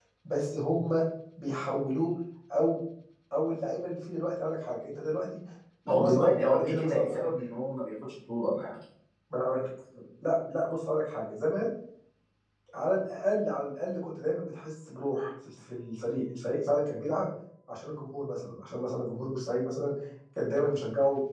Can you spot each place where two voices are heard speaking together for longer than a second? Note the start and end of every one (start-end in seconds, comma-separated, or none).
5.9-7.2